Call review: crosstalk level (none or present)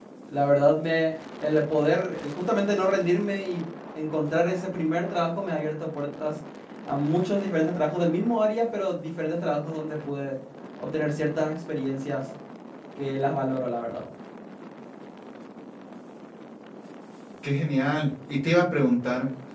none